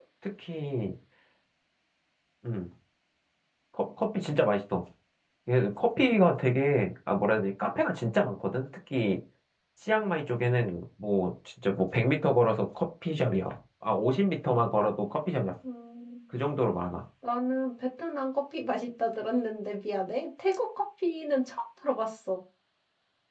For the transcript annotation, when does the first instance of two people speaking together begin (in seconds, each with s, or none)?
none